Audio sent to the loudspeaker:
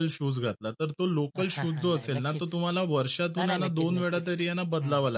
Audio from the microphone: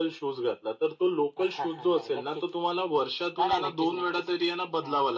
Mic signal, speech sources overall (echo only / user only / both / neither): echo only